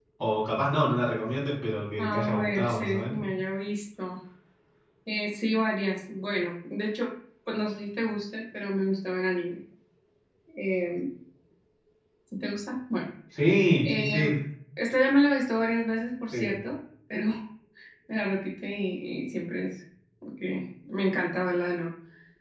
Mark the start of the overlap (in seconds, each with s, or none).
2.0 s